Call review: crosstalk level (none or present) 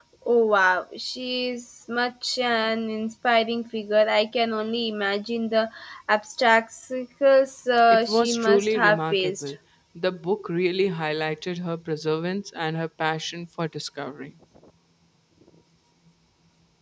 present